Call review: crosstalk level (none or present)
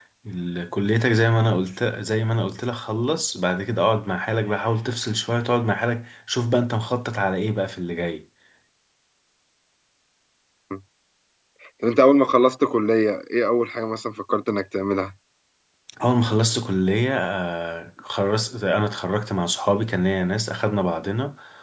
none